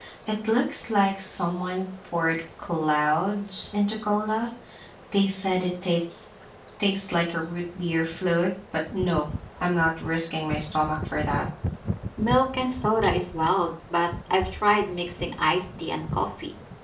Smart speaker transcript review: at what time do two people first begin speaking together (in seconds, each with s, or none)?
none